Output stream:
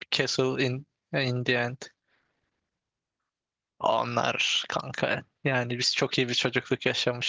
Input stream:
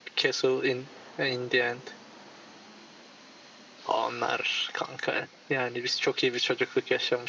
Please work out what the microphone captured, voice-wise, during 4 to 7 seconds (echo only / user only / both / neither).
echo only